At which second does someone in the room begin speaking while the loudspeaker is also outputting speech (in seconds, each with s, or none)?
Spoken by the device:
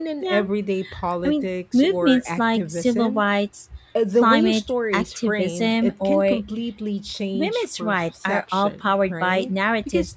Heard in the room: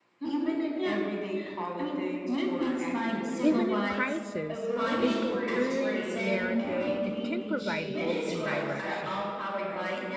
3.4 s